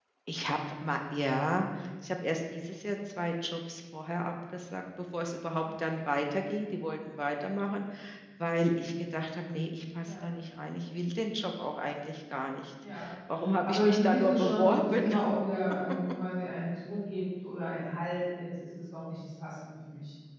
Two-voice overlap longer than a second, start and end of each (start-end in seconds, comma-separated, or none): 13.6-15.2